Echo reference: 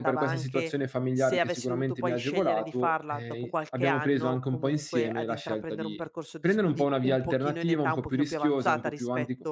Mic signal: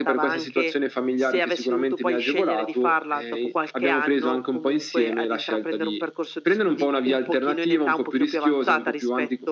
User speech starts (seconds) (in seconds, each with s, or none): none